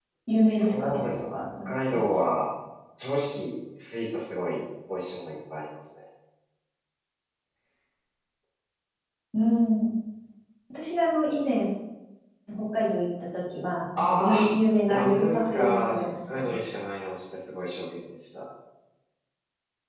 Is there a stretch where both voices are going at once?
Yes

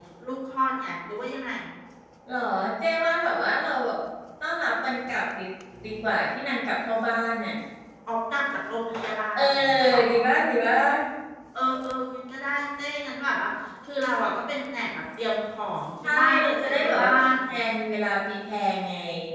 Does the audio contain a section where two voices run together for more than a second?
Yes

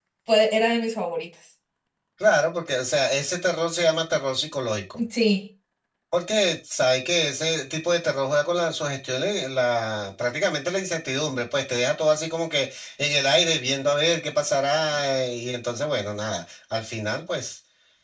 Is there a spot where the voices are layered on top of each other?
No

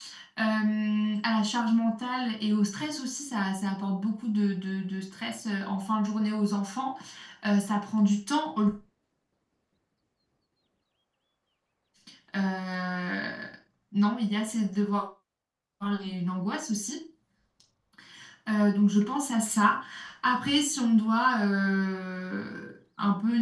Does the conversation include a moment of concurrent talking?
No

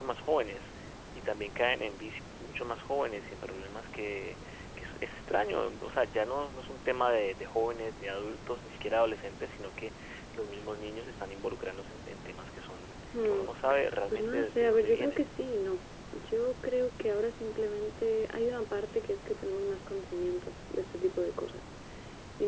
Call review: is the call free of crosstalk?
No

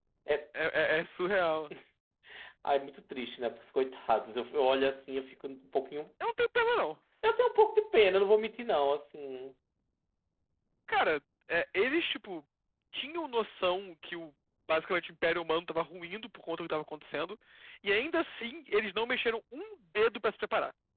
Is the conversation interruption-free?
Yes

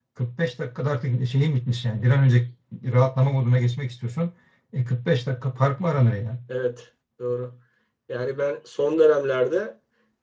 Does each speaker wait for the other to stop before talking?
Yes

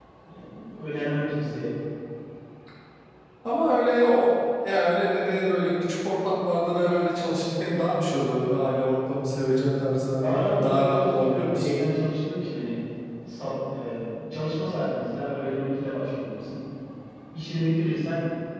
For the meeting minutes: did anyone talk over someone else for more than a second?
Yes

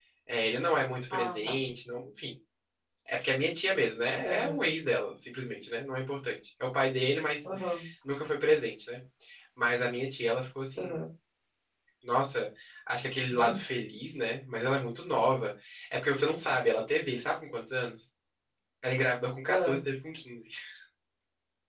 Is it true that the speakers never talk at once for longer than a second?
Yes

